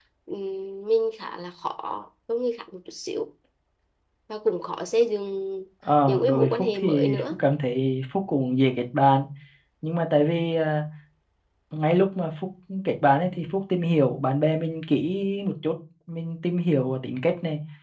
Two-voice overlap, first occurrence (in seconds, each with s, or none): 6.1 s